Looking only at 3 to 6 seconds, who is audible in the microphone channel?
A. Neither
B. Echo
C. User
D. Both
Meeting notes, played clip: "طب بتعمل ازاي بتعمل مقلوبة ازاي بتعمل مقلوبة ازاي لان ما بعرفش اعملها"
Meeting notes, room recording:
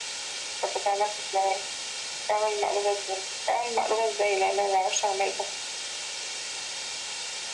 B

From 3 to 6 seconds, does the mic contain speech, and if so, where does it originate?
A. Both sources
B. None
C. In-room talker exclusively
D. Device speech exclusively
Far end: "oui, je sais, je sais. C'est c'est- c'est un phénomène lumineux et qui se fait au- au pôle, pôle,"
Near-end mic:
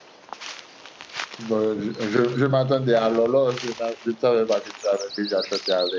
C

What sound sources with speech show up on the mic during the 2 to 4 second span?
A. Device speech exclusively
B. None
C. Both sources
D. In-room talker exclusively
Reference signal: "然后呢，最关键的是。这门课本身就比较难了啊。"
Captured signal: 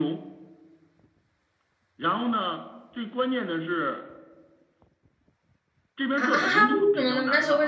A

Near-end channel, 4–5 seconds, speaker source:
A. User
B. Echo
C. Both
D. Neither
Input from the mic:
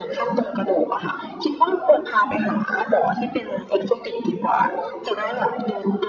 B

